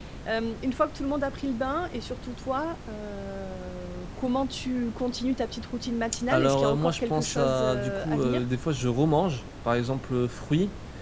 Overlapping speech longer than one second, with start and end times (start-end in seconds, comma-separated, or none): 6.3-8.4